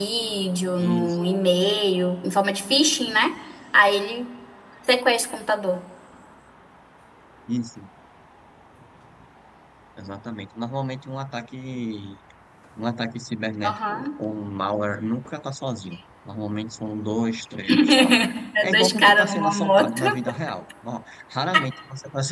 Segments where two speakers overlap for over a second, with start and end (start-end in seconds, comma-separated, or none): 18.6-20.0